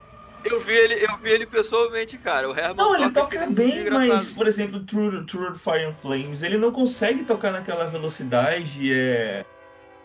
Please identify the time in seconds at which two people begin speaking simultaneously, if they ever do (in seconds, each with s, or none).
2.8 s